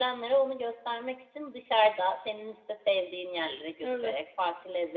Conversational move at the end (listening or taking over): listening